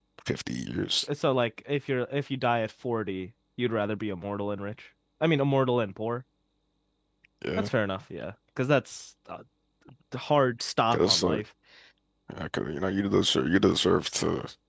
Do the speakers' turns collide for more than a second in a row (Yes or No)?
No